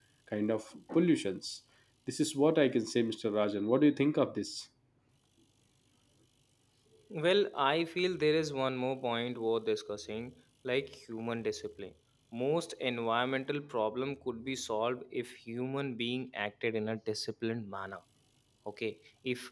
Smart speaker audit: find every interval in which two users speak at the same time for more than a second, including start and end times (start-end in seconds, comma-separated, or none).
none